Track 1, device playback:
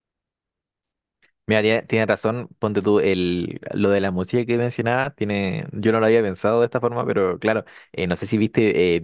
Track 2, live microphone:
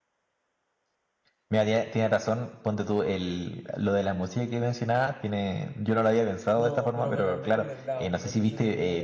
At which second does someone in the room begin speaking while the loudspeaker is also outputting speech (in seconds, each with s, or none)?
6.5 s